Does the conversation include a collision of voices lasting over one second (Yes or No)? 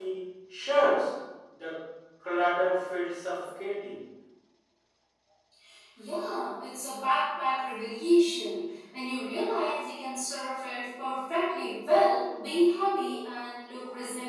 No